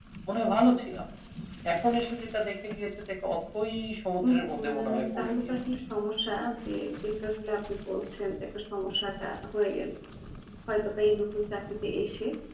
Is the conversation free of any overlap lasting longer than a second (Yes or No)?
No